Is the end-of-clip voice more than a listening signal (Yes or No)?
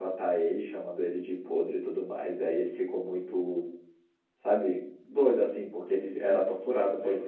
No